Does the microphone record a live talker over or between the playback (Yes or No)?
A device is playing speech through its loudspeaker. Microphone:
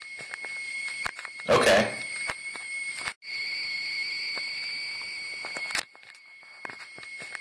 Yes